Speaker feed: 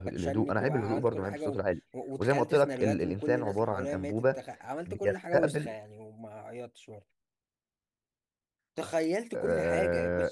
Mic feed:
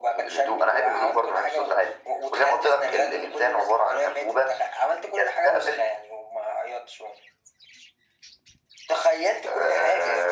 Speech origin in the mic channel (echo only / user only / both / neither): echo only